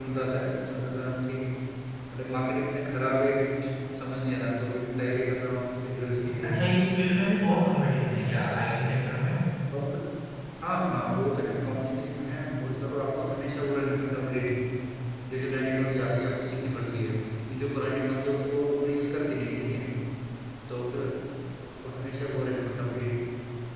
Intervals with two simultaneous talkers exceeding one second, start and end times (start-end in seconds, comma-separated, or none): none